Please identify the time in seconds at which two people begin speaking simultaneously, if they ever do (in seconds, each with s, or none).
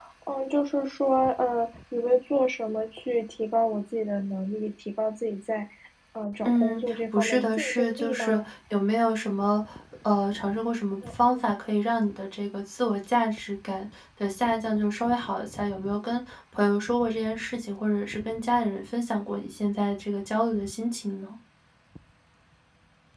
6.5 s